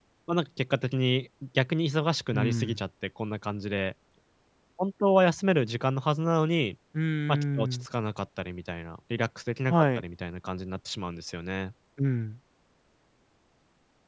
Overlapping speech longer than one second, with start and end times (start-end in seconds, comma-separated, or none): none